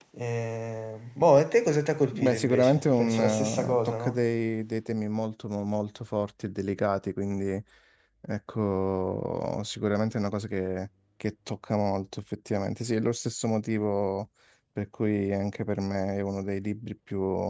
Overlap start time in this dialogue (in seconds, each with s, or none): 2.1 s